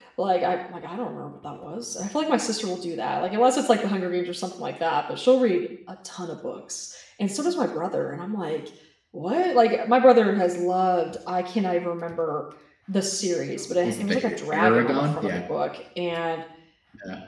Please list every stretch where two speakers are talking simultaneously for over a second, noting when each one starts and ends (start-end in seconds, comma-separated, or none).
13.6-15.4